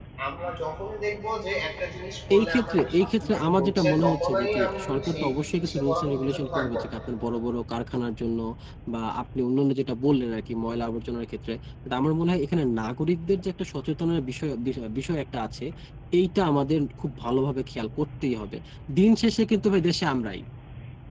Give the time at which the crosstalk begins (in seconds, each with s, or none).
2.3 s